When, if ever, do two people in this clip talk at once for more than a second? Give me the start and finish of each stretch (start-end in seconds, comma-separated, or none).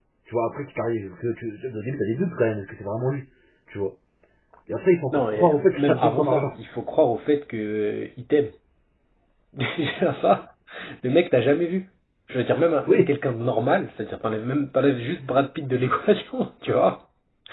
5.1-6.5